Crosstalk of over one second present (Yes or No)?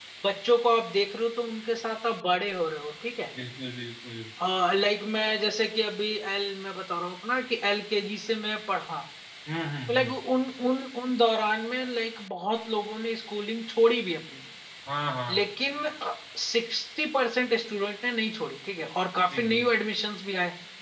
No